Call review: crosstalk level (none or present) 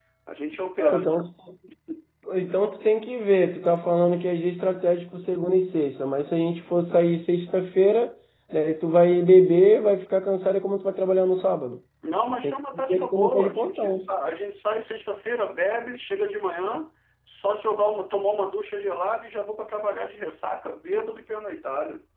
present